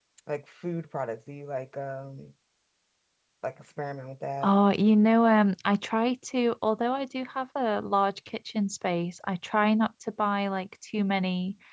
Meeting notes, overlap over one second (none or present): none